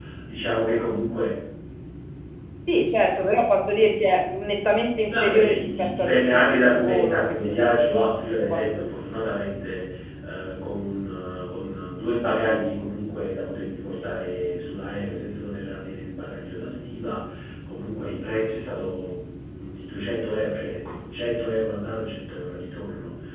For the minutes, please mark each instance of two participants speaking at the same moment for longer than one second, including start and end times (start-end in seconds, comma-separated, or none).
5.1-7.8